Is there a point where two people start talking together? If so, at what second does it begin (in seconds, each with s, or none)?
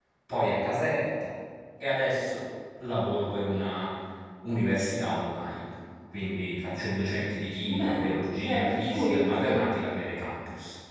7.7 s